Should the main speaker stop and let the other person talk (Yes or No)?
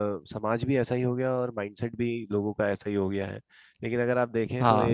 No